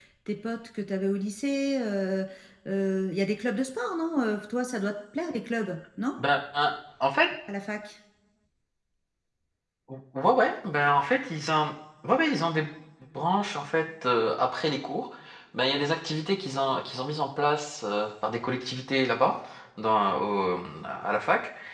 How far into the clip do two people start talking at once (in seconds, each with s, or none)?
none